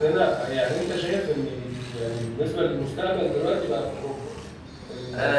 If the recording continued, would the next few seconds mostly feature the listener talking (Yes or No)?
Yes